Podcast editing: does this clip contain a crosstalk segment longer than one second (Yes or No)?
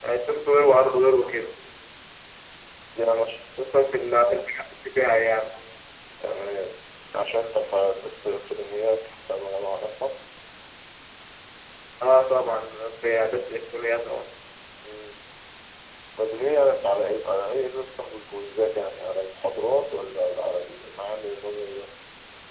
No